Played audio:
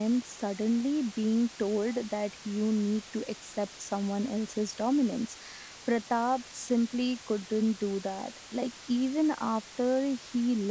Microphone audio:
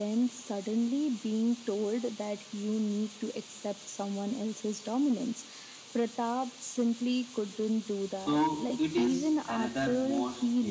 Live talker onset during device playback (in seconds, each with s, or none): 8.1 s